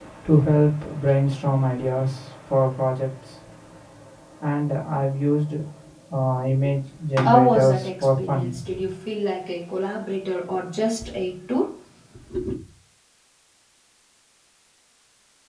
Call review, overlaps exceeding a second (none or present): present